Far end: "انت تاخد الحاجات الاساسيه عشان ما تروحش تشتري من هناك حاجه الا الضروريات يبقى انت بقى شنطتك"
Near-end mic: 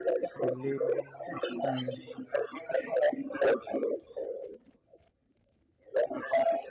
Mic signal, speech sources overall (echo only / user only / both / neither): both